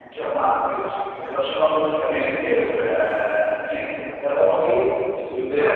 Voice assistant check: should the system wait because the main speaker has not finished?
Yes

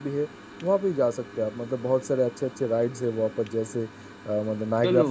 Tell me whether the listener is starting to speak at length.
No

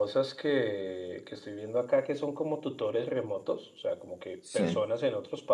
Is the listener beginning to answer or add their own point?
No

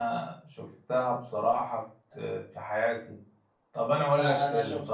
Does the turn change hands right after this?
Yes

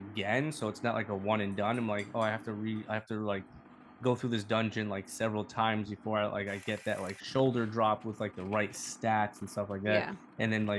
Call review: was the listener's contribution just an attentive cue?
Yes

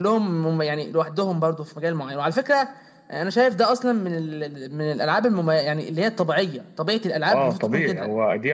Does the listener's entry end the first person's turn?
Yes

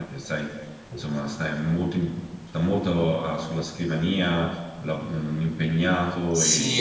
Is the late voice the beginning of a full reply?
Yes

